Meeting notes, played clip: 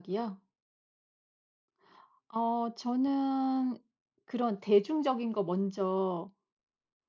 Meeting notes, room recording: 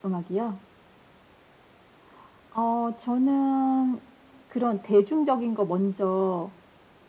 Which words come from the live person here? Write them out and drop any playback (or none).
none